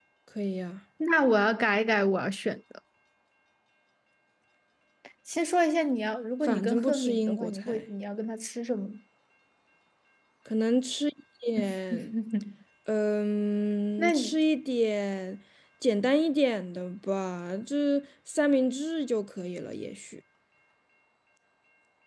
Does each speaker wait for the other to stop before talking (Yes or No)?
No